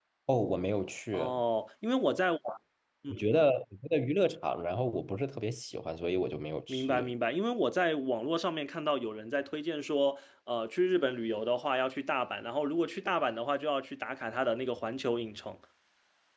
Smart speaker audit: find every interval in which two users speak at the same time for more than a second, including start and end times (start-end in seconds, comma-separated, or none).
none